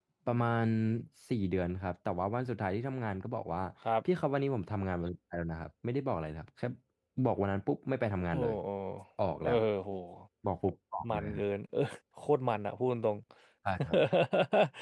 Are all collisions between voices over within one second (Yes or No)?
Yes